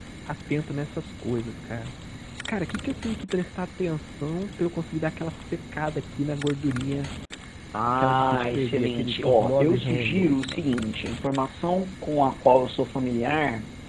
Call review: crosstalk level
present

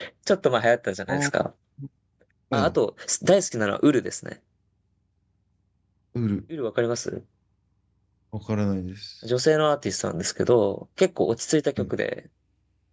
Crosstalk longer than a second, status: none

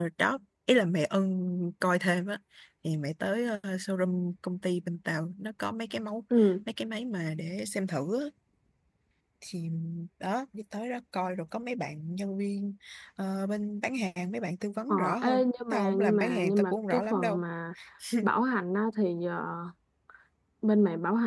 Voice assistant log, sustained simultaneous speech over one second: present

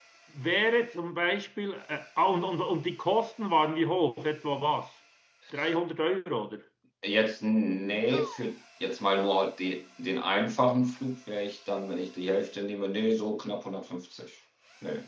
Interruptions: none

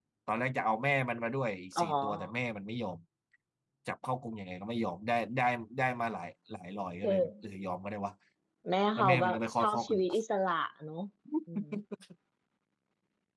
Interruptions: present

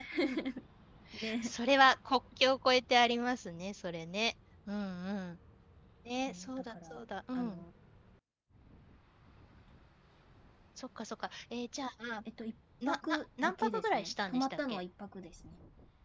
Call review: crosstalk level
present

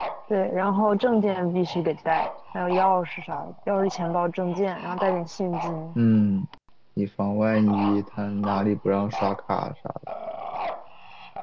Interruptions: none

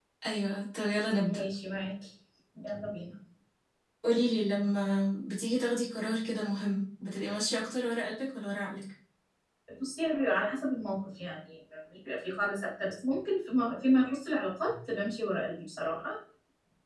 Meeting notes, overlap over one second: none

